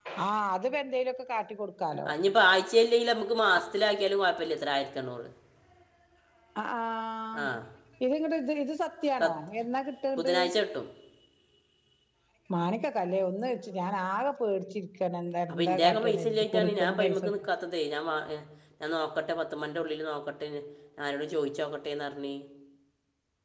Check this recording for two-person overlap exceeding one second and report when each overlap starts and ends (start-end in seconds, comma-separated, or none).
15.5-17.5